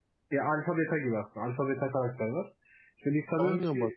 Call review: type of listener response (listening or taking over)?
listening